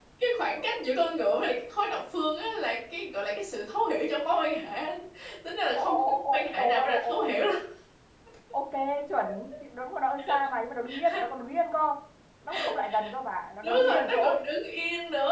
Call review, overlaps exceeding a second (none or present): present